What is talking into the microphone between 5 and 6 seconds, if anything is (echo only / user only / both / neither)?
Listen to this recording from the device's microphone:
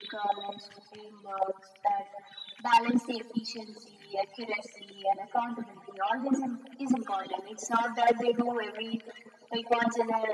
echo only